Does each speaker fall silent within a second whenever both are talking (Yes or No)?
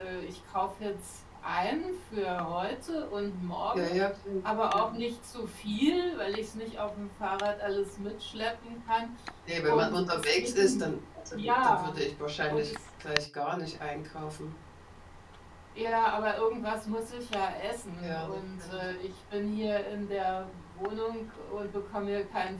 No